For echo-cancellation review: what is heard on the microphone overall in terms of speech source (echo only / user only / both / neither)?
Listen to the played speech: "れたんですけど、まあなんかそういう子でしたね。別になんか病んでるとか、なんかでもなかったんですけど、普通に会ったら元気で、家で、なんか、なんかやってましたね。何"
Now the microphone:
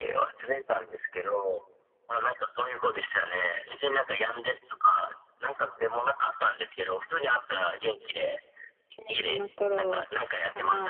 both